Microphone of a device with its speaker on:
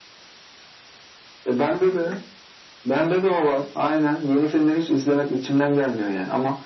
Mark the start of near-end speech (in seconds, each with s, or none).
none